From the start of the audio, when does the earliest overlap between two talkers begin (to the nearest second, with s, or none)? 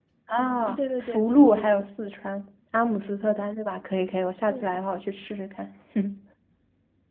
1 s